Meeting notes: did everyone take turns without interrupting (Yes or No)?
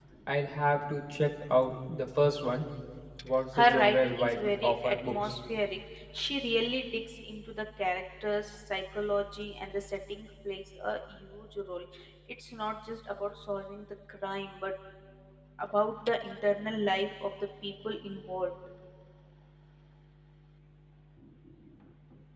No